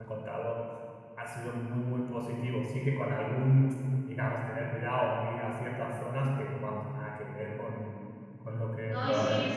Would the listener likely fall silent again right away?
No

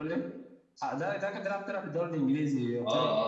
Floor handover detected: Yes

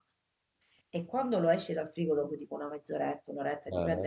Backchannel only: Yes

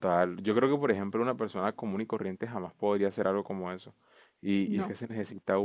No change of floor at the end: Yes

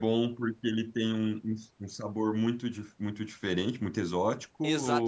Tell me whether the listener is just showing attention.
No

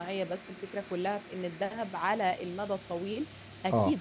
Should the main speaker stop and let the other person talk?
No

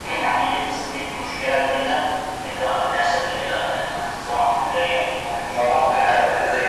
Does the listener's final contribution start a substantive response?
Yes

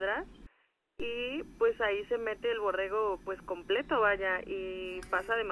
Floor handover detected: No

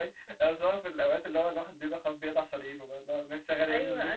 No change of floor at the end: No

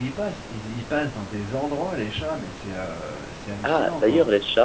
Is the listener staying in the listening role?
No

